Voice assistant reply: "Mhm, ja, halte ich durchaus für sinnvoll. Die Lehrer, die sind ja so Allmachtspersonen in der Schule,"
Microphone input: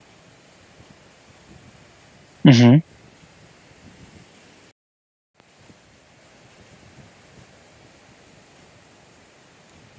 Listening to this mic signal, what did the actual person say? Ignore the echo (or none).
Mhm.